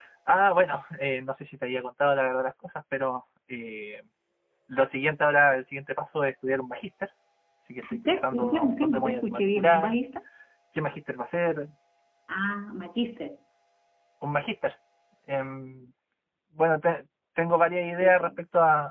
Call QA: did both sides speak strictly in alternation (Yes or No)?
No